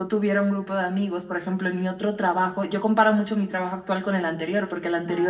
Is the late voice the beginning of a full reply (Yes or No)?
No